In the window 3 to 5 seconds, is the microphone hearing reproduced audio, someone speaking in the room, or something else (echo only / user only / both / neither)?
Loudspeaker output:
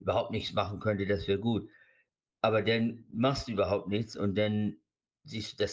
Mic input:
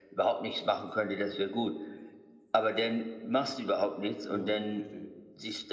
both